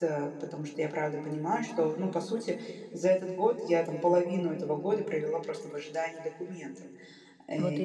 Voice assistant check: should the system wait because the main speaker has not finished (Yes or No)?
Yes